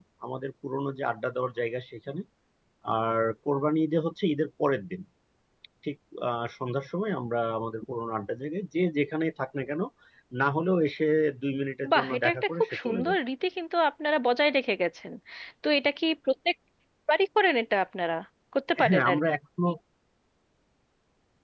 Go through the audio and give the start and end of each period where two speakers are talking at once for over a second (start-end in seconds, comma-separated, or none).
11.9-13.2